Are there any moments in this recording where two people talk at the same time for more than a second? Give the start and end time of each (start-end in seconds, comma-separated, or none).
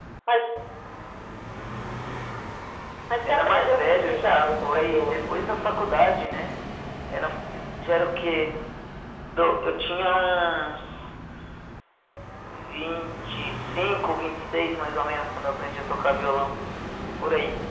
3.3-5.2